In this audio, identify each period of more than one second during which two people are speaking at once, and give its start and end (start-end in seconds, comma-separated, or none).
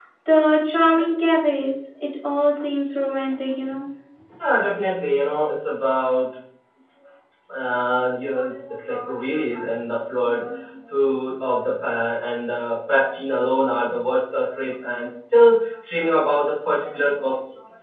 none